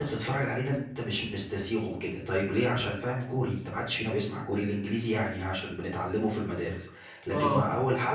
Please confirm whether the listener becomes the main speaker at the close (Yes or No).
No